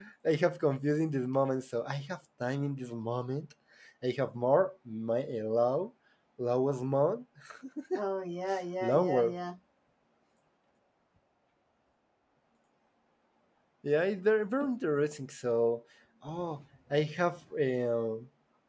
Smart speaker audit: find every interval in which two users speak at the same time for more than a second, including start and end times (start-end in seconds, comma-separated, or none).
none